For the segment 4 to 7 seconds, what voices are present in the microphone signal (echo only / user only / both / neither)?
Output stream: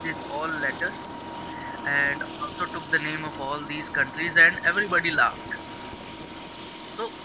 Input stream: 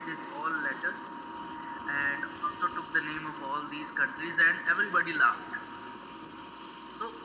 echo only